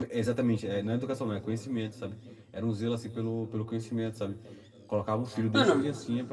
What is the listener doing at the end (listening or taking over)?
listening